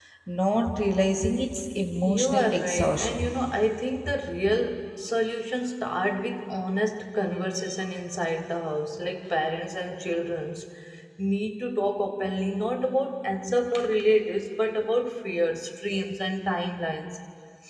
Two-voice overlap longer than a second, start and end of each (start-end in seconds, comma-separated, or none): 2.0-3.3